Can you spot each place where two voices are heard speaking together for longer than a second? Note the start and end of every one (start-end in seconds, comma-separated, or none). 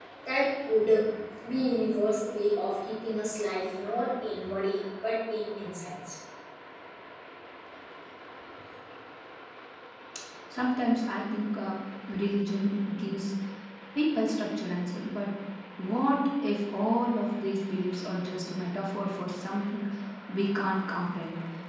none